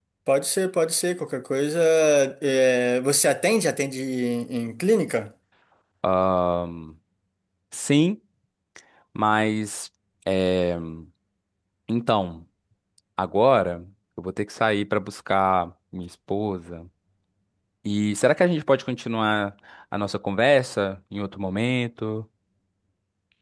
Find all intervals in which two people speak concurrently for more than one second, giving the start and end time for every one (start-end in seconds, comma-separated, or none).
none